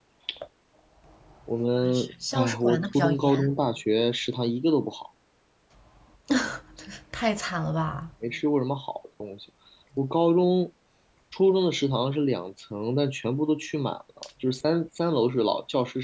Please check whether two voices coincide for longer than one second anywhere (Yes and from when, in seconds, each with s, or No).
Yes, from 1.8 s